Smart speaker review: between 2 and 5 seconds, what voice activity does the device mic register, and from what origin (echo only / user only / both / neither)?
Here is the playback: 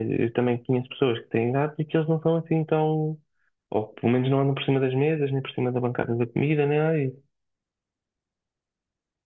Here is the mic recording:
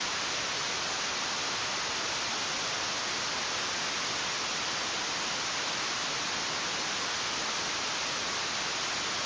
neither